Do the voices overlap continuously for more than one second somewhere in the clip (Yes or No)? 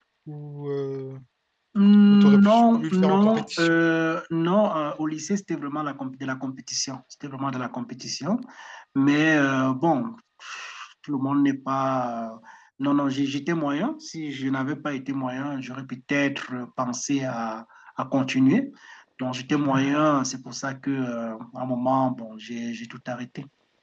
Yes